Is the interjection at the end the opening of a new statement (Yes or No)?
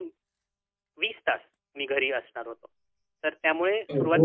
No